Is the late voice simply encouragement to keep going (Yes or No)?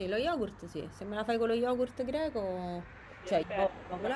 No